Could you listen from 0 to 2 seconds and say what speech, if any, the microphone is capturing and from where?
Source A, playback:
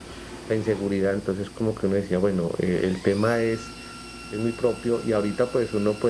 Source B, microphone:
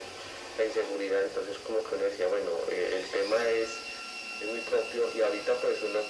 echo only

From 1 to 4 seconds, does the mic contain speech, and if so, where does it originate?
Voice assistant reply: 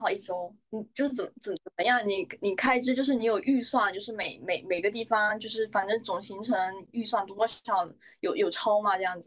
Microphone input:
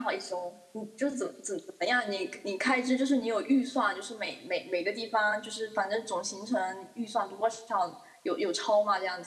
echo only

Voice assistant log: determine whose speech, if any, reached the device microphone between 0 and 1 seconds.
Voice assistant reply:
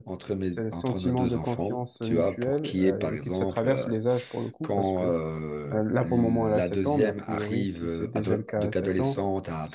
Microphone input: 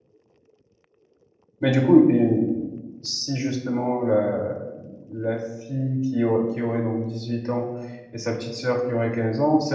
neither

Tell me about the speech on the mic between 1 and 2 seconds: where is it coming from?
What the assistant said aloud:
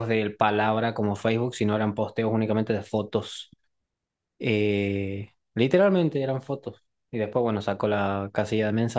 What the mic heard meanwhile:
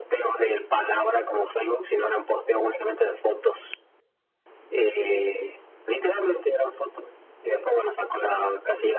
echo only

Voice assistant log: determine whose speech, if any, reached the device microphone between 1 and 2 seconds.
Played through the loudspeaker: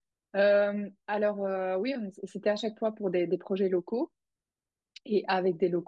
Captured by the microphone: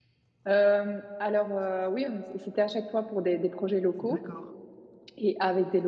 echo only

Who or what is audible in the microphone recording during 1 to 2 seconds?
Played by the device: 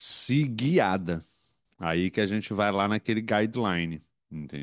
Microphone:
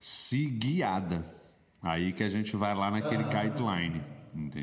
echo only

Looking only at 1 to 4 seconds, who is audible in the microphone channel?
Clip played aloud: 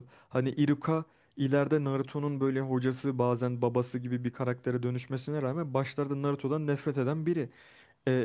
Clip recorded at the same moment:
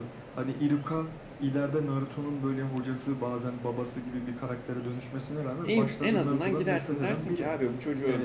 echo only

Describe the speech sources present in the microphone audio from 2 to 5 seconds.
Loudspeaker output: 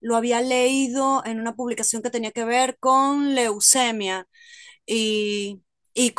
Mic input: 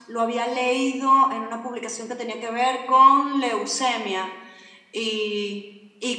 echo only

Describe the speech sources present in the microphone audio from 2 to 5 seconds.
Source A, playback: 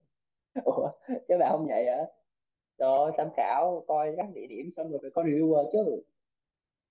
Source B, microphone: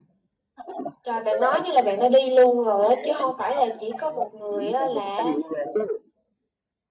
both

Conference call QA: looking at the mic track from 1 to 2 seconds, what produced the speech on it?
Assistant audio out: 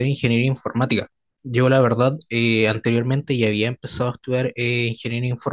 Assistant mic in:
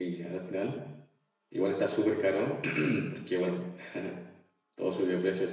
user only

